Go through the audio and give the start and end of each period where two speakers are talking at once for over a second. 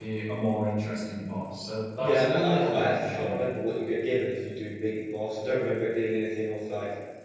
2.0-3.5

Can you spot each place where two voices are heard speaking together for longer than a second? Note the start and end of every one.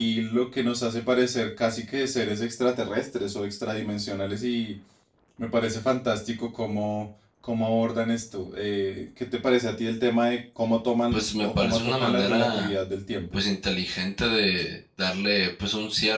11.1-12.8

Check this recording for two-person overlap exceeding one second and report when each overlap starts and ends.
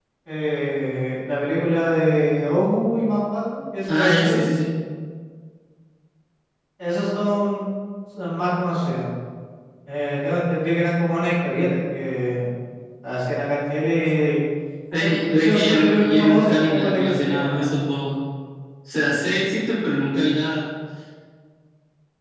15.0-17.6

